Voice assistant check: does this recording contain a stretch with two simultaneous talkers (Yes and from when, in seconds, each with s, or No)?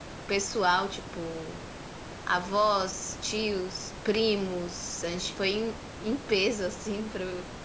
No